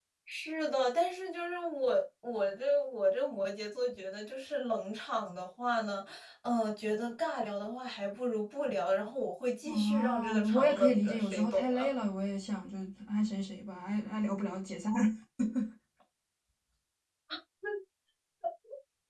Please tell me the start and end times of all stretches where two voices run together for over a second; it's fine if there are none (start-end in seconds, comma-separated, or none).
9.6-11.9